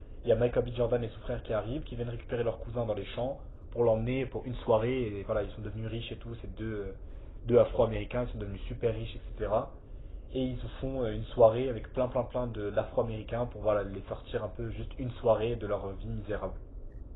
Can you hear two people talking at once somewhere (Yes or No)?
No